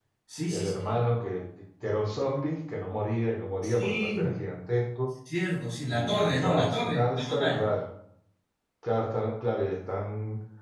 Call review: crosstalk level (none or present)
present